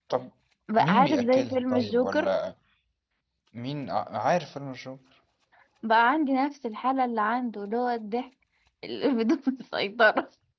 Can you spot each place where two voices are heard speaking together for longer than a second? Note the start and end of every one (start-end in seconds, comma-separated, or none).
0.8-2.3